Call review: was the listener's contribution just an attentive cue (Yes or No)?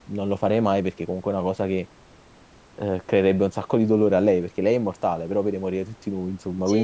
No